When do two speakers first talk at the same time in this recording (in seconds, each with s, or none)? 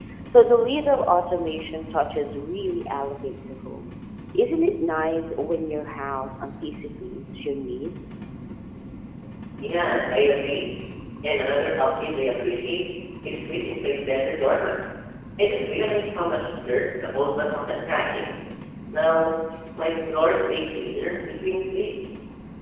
none